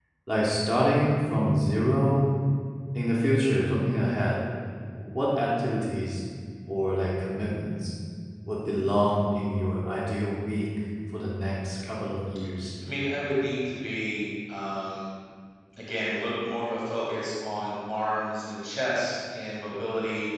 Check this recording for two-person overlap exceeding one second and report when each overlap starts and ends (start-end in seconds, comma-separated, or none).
none